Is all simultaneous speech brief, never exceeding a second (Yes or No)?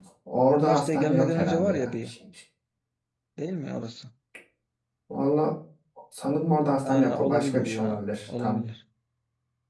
No